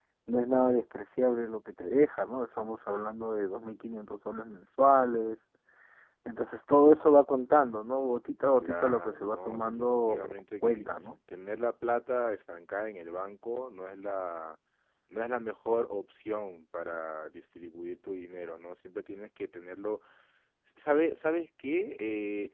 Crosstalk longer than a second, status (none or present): present